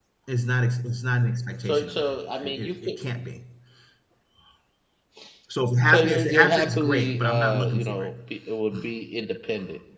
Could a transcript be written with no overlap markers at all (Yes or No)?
No